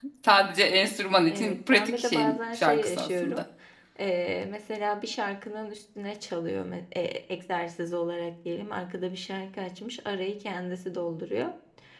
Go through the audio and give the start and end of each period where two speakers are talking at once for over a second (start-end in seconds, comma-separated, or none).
1.3-3.4